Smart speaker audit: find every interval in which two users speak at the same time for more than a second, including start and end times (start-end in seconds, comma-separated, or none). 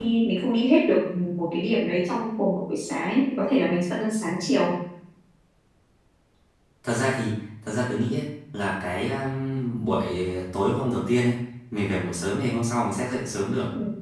none